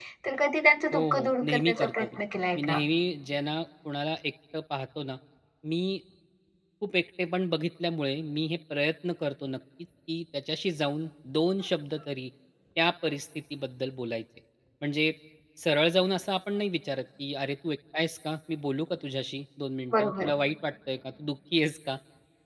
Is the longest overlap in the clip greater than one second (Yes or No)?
Yes